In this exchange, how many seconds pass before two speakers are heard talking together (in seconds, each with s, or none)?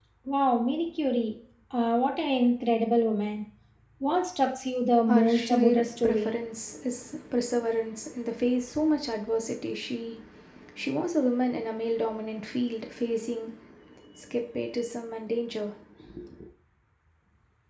5.1 s